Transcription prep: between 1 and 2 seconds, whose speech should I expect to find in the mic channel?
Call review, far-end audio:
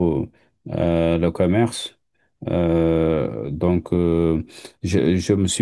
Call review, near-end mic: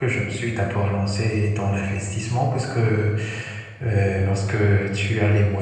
user only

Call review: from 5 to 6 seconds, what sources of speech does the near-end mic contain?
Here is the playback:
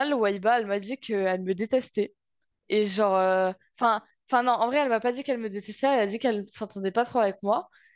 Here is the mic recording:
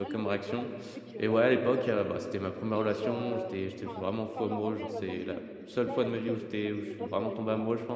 both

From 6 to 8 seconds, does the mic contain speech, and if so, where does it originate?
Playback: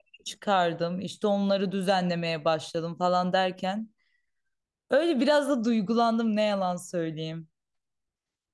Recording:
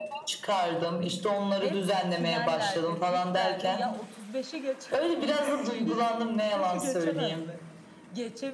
both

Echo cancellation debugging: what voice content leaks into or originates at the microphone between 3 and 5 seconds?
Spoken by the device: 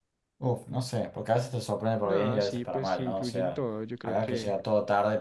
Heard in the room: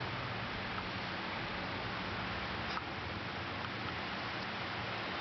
neither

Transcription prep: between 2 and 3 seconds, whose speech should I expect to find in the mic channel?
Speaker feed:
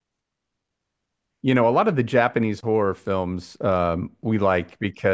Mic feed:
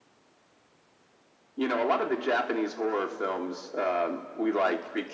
echo only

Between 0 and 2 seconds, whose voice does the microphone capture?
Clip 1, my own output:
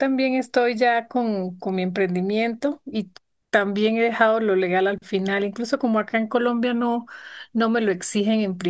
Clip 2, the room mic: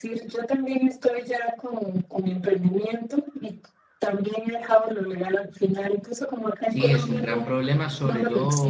echo only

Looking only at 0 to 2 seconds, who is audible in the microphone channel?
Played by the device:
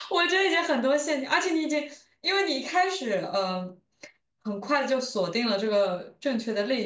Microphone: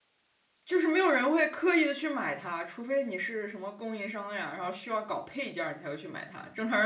user only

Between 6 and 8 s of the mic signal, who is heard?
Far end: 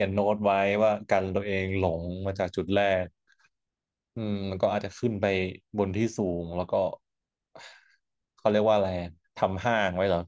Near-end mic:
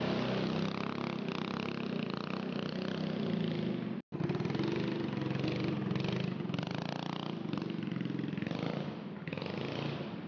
neither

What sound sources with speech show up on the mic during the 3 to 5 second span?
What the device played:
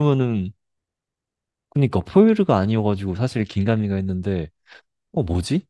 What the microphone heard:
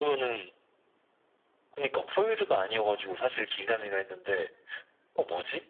echo only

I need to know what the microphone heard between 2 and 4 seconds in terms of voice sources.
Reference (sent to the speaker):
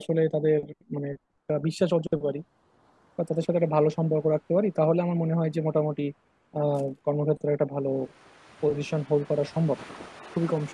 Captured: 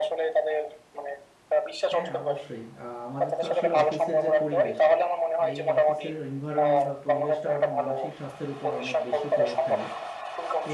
both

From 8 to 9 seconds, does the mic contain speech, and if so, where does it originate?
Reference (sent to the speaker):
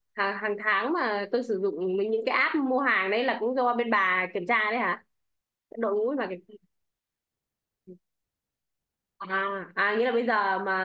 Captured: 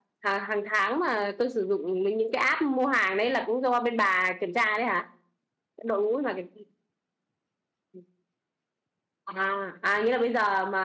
neither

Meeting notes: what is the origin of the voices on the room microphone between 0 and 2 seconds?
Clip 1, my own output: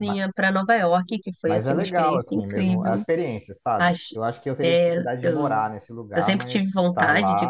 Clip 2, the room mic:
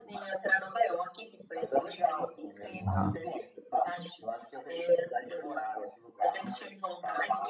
echo only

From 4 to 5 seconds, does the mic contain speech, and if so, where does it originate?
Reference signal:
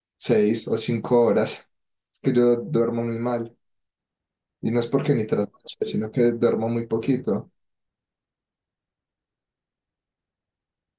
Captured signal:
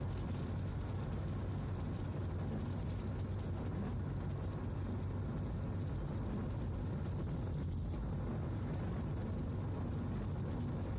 neither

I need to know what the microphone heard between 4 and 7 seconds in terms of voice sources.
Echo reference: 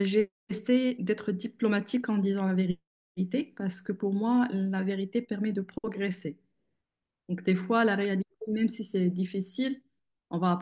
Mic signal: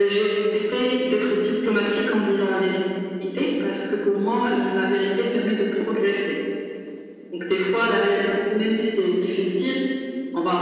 echo only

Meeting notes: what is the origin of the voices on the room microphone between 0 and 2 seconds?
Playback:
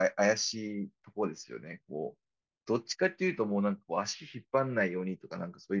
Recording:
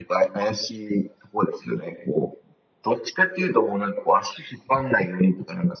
echo only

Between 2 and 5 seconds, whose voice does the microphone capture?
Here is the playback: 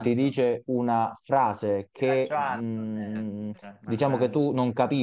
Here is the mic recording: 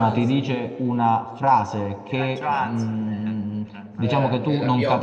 both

